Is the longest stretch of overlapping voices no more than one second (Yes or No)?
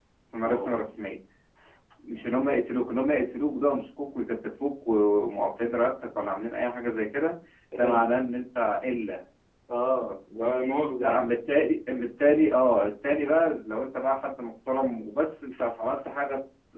Yes